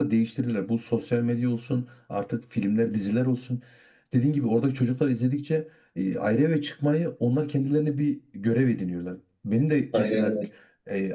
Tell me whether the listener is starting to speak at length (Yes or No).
No